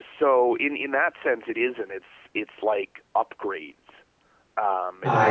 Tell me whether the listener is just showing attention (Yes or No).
Yes